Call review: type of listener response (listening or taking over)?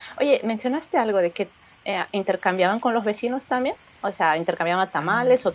listening